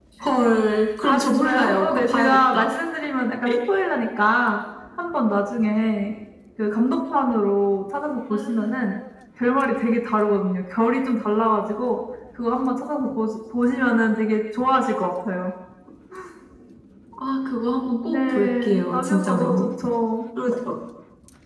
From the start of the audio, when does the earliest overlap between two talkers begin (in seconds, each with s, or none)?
1.0 s